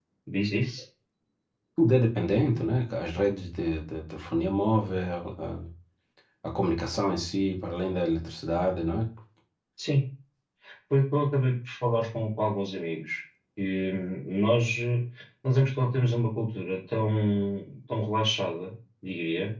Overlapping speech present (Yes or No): No